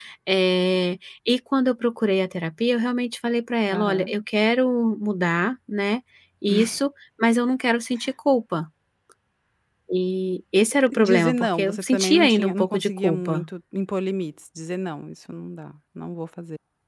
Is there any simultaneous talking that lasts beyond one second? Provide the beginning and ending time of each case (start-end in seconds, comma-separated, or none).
10.9-13.4